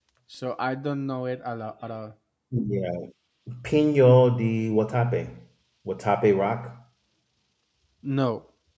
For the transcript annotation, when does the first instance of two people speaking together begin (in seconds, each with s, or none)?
none